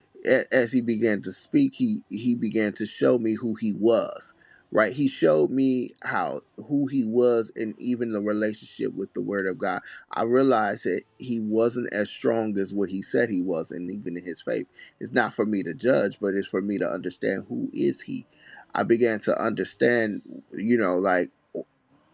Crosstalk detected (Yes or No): No